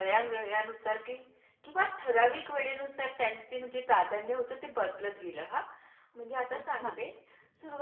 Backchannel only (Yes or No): Yes